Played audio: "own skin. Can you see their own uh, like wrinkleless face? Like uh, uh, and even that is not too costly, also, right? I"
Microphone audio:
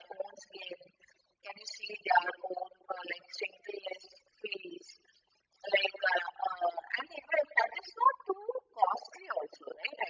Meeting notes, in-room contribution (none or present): none